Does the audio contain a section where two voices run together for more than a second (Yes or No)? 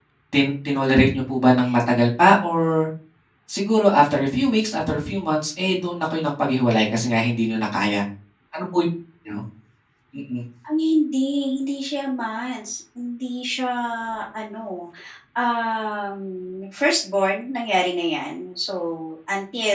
No